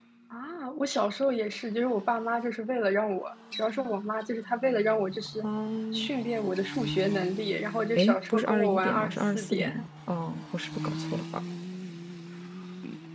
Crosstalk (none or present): present